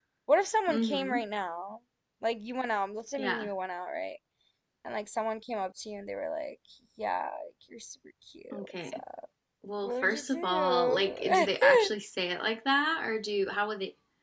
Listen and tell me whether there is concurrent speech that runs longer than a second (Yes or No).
Yes